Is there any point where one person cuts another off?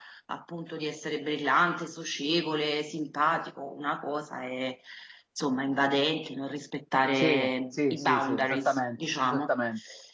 Yes, from 7.2 s

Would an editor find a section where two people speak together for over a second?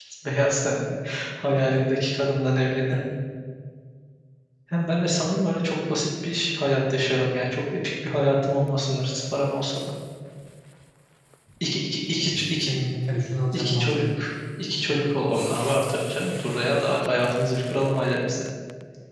No

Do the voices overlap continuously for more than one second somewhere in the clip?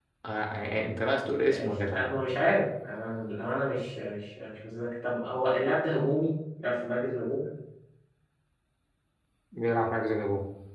No

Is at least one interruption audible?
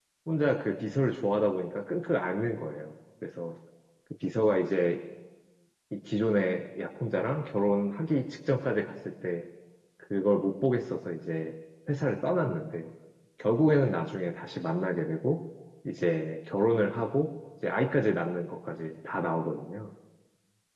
No

